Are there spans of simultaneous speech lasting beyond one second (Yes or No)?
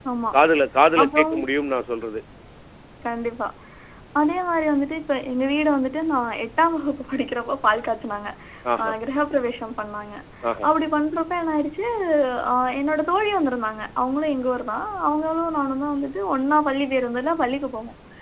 No